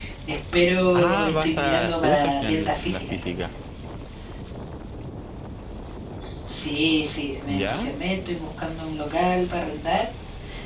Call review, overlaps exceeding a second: present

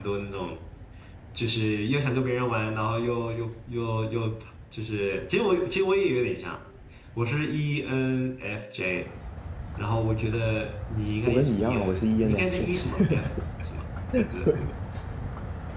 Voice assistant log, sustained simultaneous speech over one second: present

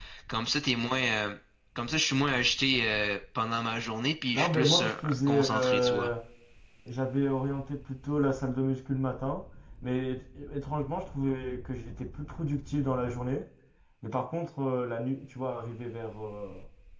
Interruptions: present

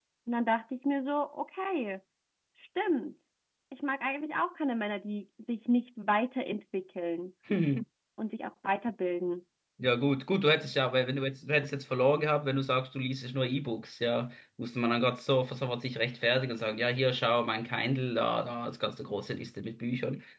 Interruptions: none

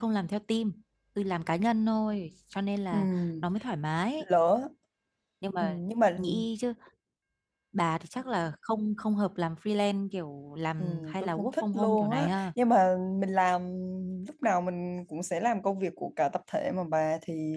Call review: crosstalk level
present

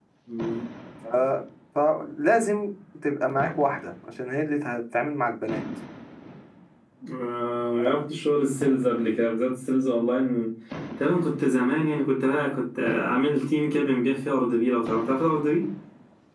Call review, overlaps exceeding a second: none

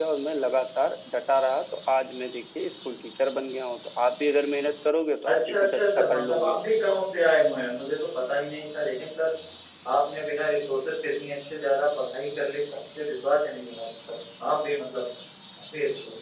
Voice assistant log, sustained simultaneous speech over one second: present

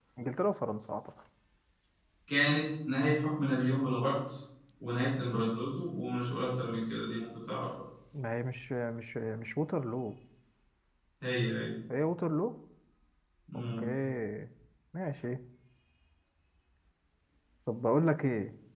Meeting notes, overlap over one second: none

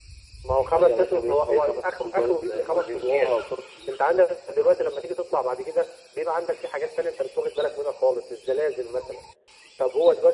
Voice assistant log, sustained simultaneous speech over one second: present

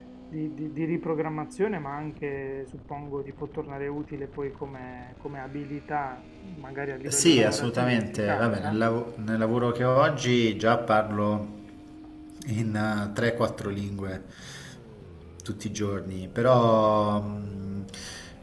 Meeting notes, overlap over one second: present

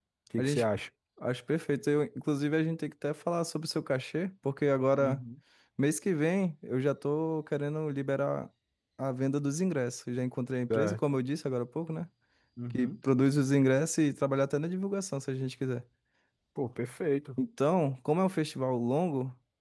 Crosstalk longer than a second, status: none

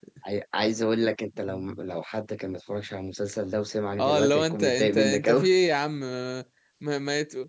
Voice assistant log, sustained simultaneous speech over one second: present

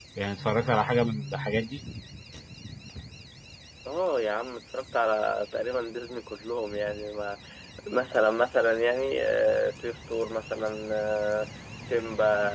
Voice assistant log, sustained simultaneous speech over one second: none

